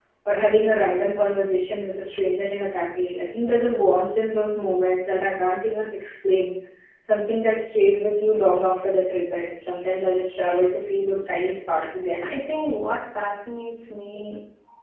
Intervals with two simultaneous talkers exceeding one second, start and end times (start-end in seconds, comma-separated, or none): none